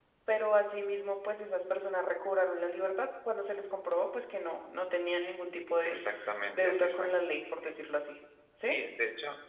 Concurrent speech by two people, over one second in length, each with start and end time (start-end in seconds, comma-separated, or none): none